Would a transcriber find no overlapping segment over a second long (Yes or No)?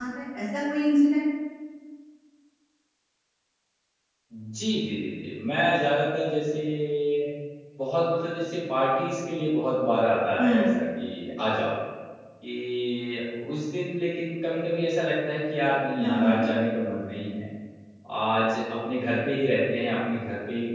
Yes